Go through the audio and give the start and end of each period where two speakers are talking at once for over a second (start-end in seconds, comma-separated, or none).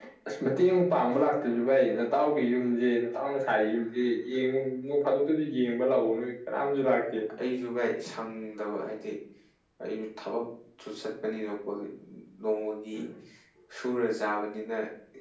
none